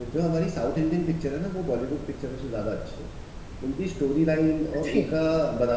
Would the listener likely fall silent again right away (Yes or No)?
Yes